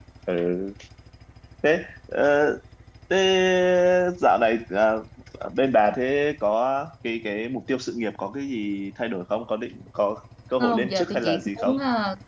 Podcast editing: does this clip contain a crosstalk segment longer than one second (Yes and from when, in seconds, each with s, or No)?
Yes, from 10.6 s